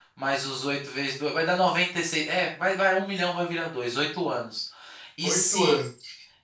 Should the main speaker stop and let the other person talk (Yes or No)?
No